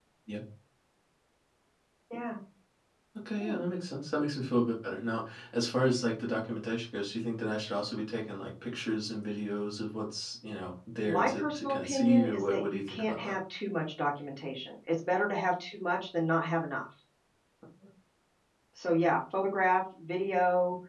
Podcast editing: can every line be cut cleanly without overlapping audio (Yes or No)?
No